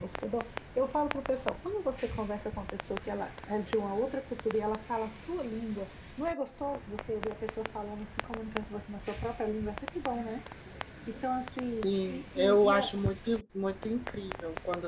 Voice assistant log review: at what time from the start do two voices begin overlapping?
11.7 s

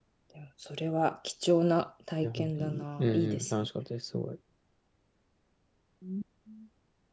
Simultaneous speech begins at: 2.2 s

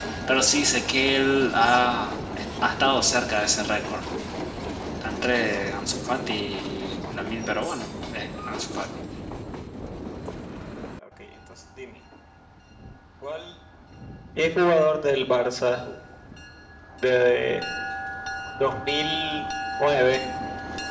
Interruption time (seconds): none

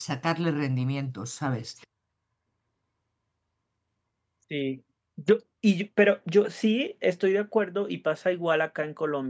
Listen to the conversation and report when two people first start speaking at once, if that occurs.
none

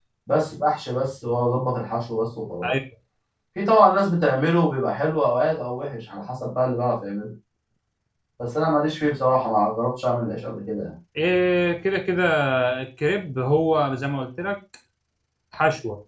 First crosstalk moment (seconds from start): none

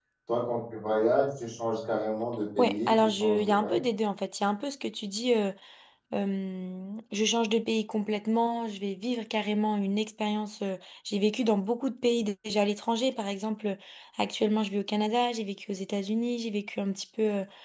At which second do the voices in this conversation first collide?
2.6 s

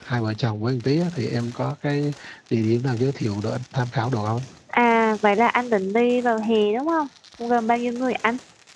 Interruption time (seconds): none

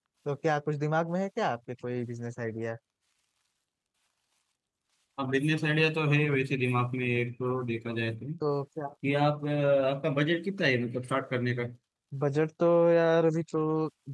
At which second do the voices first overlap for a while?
none

